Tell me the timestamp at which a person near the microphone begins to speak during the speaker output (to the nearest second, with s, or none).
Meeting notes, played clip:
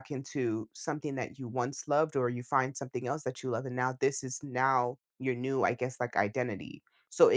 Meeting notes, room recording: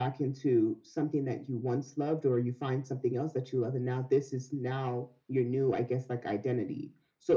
none